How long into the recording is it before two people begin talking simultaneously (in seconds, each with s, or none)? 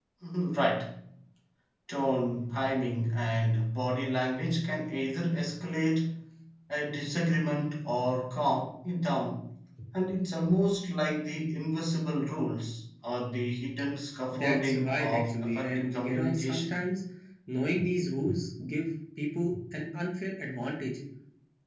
14.3 s